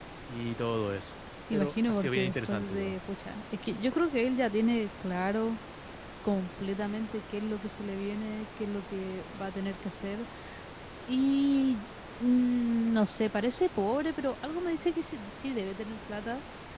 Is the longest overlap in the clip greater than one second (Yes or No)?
Yes